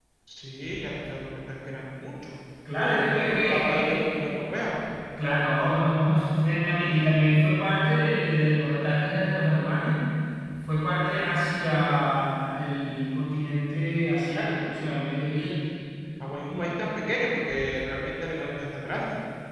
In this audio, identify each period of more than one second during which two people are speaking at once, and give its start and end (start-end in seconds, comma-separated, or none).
2.8-4.1